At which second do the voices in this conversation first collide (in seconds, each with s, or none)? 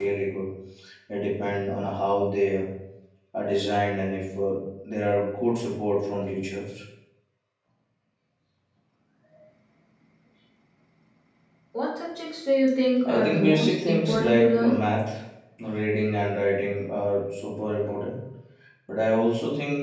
13.0 s